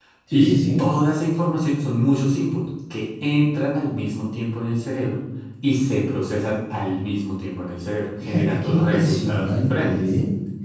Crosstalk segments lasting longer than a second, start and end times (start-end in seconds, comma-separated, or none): 8.2-10.0